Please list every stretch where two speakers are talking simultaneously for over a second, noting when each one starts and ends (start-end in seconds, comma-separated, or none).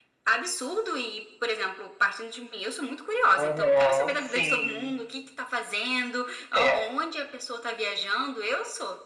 3.4-4.9